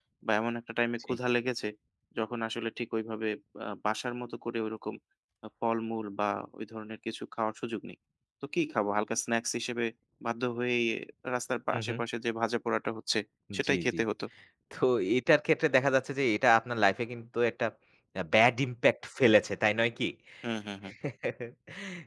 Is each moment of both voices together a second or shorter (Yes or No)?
Yes